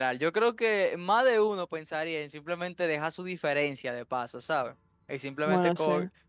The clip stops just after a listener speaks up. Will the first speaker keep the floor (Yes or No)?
Yes